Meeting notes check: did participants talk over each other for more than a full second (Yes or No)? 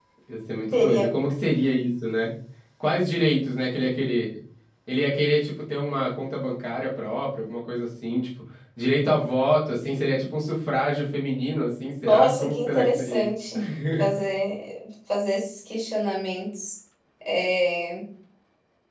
Yes